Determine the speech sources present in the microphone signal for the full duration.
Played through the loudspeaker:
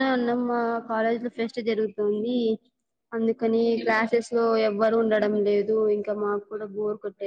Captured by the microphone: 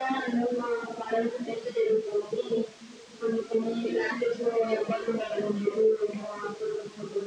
echo only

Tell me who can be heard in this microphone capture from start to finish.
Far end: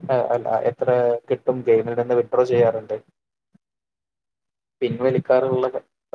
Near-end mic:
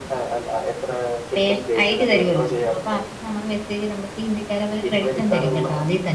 both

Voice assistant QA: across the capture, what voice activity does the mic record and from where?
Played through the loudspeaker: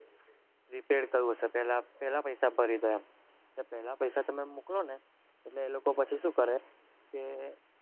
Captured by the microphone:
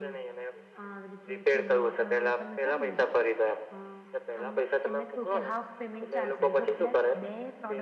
both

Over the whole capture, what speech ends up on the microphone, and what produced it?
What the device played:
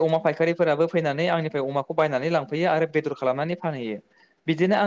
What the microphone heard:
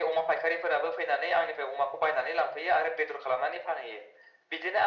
echo only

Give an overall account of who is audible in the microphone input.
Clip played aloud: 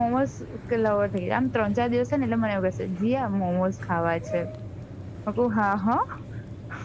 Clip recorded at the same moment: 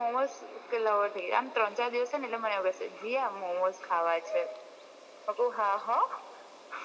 echo only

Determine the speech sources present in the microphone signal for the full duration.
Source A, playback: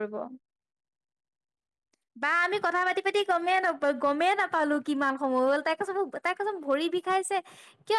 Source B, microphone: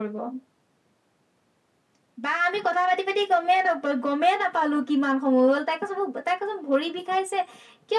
echo only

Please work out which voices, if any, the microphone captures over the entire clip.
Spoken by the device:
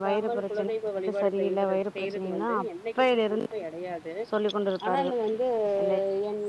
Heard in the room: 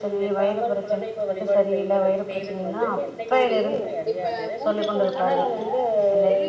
both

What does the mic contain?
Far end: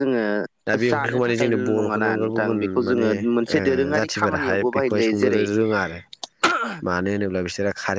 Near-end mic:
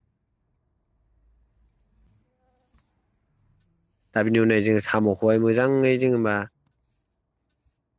user only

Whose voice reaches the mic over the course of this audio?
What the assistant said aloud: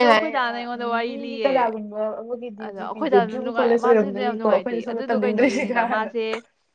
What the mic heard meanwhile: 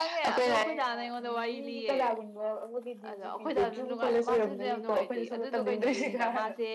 echo only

